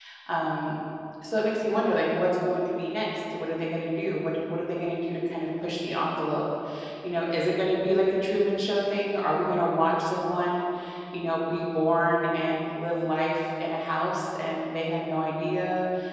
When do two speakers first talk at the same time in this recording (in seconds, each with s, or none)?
none